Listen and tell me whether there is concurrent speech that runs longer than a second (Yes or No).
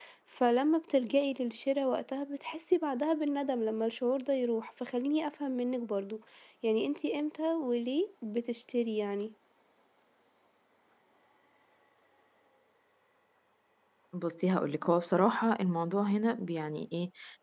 No